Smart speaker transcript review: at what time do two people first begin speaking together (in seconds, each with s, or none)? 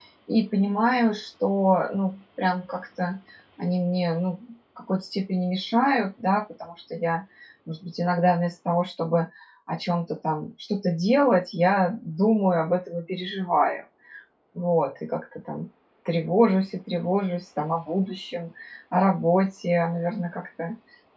none